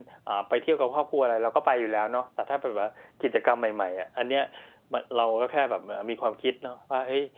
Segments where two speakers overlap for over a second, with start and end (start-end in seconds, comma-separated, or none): none